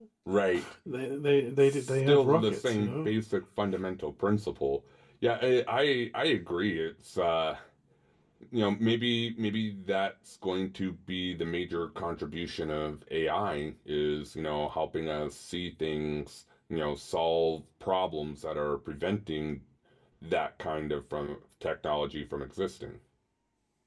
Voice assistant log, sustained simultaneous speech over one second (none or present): present